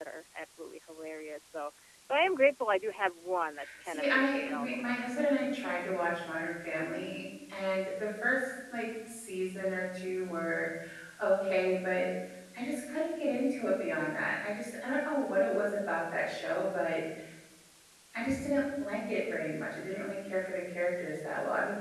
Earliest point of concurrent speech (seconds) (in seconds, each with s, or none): 3.8 s